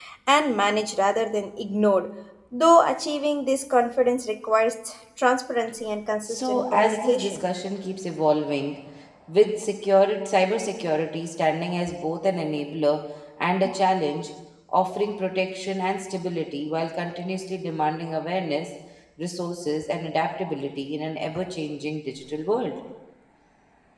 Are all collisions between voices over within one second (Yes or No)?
No